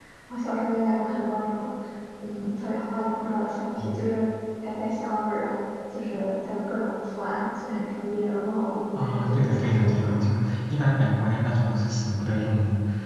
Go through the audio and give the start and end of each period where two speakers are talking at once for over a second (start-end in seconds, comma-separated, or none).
8.9-10.2